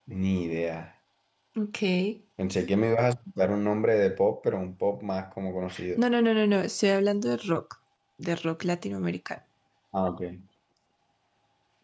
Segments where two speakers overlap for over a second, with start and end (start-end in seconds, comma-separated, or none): none